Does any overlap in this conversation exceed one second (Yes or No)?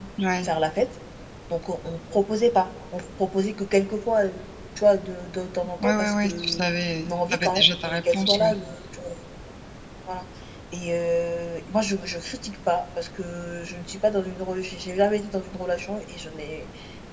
Yes